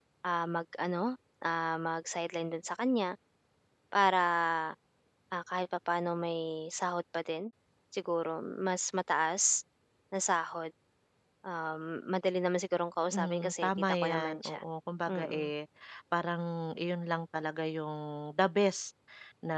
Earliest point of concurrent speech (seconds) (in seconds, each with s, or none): 13.1 s